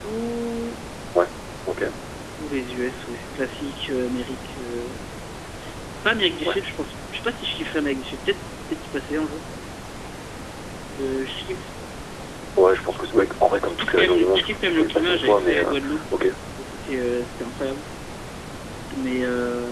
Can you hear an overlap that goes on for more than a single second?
Yes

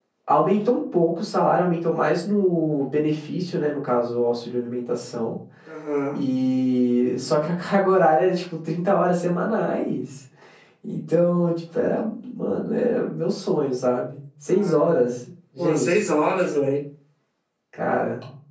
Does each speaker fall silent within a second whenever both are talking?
Yes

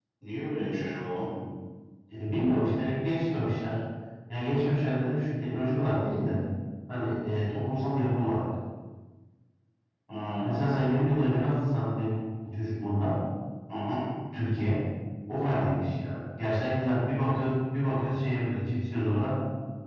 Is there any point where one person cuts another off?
No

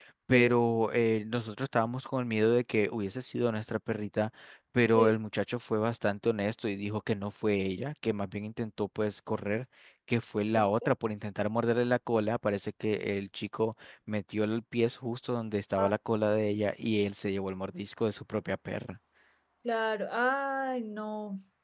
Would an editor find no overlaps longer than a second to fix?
Yes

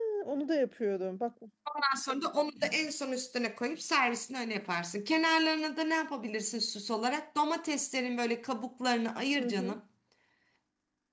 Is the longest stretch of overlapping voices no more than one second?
Yes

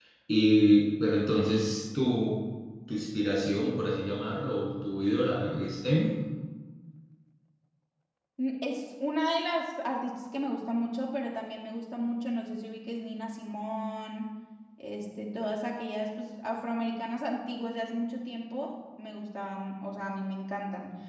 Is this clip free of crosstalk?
Yes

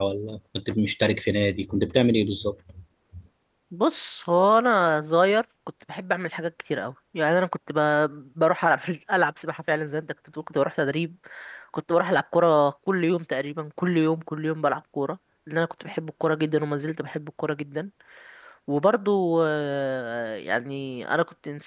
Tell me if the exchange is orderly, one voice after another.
Yes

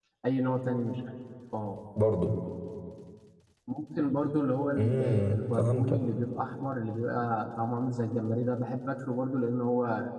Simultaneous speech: Yes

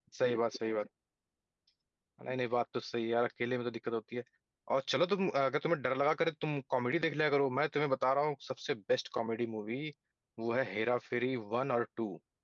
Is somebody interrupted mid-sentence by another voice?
No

